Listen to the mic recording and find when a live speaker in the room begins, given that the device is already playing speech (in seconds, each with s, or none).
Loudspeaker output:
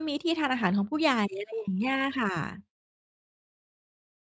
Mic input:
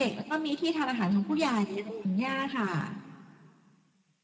none